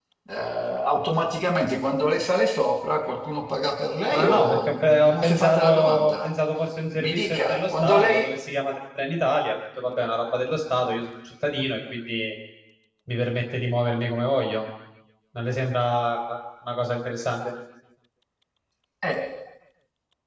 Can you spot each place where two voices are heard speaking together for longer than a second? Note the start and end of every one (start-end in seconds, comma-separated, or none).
4.1-6.3, 7.0-8.3